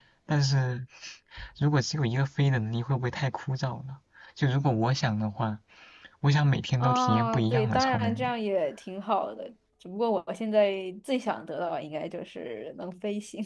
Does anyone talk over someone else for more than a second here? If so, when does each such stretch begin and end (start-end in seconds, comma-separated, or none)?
6.8-8.3